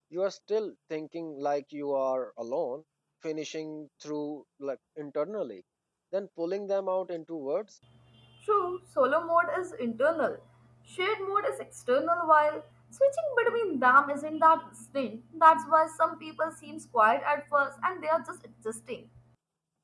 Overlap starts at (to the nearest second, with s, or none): none